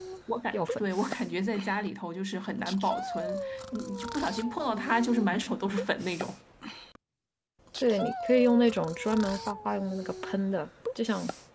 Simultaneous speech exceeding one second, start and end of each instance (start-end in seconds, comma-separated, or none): none